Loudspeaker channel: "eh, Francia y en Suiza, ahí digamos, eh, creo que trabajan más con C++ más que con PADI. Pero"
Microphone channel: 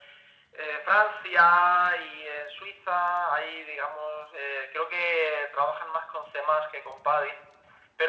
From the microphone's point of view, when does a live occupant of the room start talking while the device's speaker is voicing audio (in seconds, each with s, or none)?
none